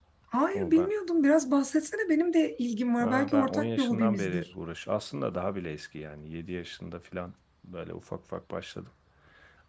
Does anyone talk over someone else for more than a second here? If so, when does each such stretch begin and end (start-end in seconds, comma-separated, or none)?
3.0-4.5